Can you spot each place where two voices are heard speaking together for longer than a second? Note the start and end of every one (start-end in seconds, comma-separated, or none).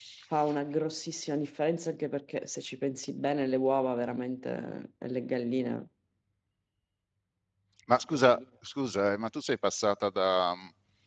none